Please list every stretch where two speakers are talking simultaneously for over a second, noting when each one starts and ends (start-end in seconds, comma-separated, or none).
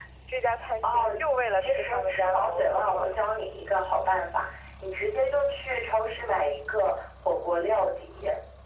1.5-3.1